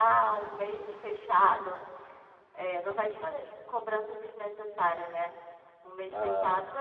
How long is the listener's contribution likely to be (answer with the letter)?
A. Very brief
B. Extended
A